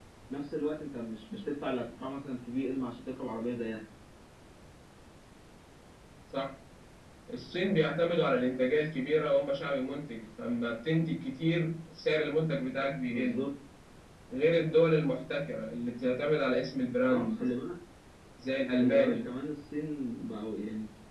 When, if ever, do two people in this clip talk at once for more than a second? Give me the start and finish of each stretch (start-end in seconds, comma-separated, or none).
none